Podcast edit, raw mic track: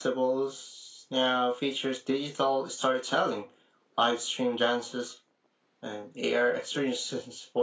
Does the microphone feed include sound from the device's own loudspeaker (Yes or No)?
Yes